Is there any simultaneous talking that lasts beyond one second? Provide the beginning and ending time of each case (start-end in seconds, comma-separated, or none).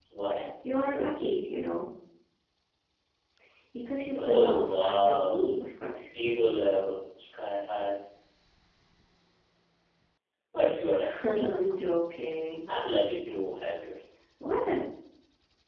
4.1-5.5